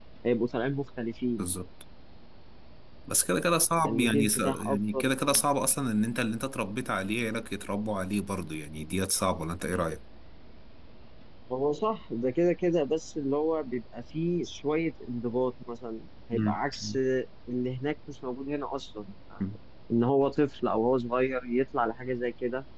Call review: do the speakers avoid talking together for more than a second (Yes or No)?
No